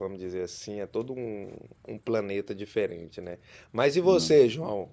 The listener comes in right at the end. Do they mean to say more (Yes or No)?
No